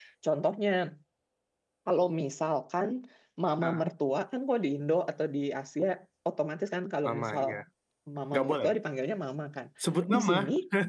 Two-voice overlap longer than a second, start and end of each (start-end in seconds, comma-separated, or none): none